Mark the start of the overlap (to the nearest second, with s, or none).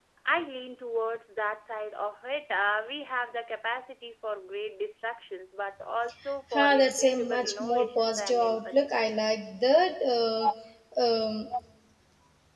7 s